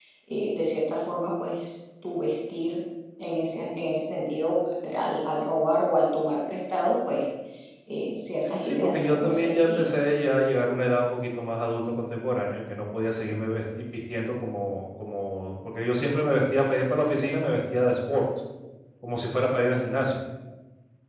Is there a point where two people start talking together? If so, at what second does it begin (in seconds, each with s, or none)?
8.6 s